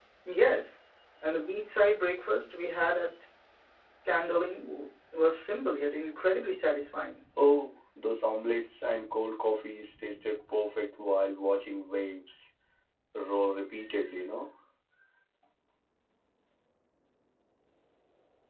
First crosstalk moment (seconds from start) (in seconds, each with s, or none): none